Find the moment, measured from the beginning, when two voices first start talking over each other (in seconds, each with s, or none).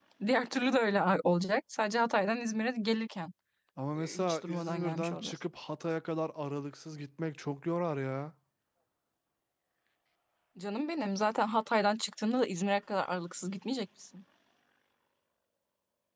4.0 s